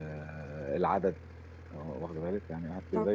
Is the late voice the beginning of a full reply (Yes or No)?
No